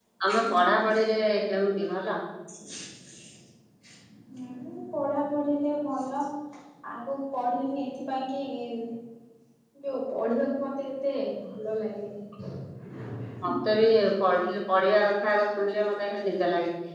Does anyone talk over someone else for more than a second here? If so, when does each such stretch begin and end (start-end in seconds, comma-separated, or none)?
none